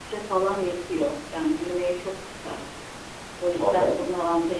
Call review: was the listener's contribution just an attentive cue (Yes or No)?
Yes